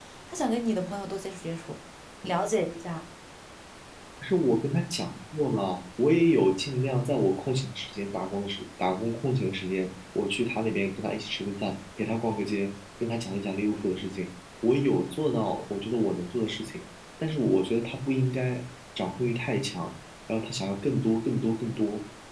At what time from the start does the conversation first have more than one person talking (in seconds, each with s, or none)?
none